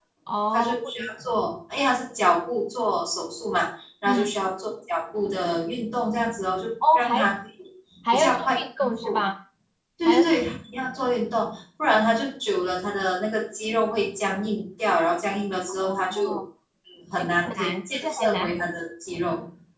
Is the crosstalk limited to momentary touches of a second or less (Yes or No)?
No